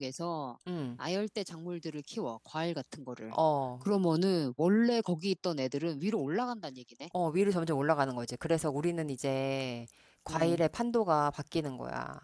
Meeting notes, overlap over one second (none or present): none